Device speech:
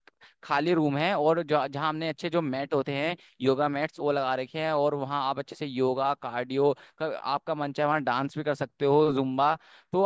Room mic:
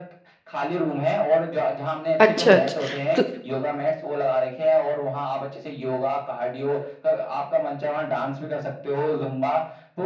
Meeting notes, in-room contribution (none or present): present